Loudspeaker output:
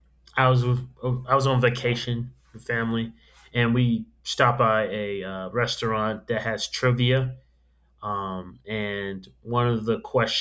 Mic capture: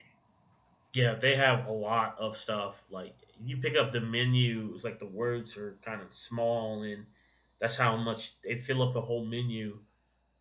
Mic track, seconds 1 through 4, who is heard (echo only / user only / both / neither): user only